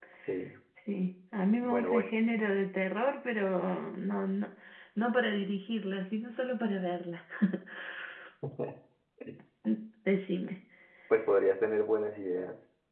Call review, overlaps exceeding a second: none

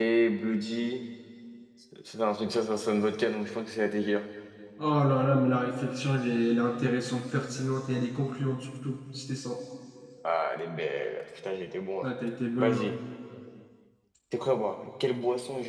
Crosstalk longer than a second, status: none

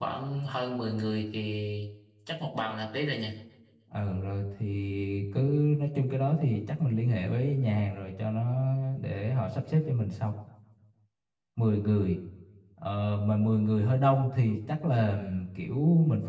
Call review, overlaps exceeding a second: none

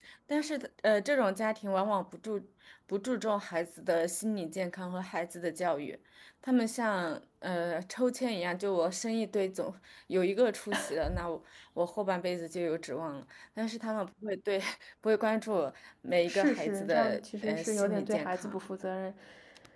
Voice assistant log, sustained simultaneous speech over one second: present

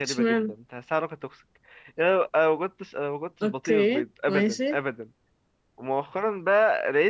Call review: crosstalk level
present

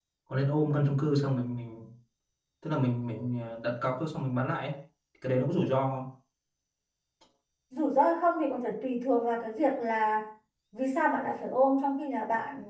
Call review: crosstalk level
none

